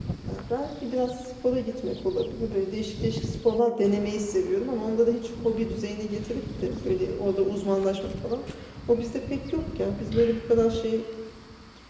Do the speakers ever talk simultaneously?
No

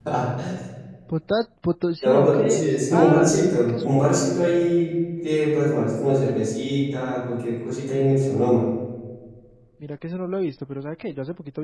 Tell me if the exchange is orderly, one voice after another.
No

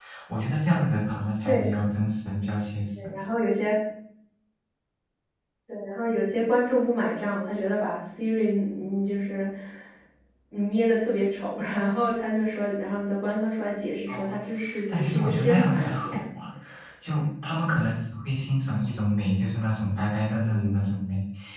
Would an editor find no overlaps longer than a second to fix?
No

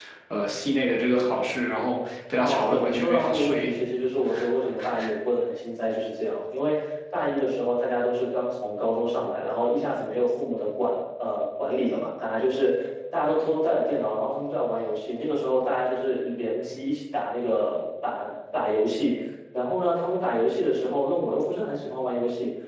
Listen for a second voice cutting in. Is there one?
Yes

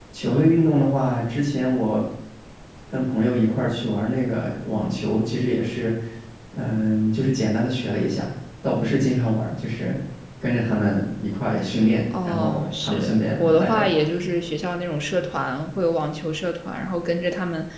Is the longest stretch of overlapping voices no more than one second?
No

